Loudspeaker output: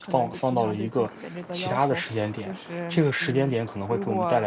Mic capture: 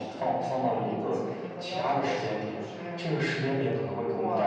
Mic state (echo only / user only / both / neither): echo only